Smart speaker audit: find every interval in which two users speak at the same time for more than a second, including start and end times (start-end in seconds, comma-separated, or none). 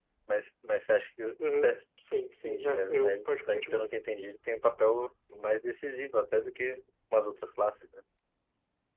2.5-3.9